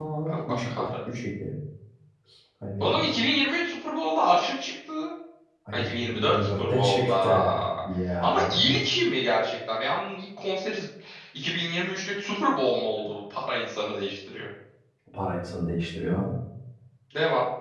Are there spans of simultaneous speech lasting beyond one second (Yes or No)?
Yes